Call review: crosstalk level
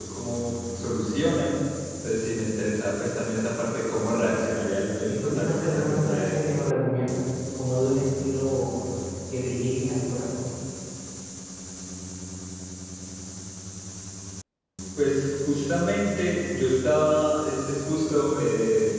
present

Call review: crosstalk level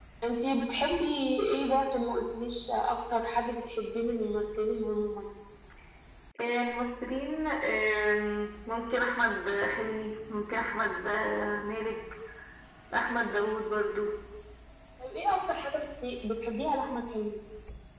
none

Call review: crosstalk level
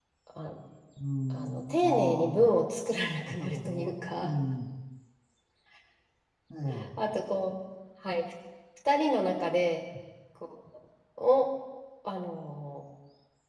present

